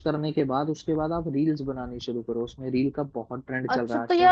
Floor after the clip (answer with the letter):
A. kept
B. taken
B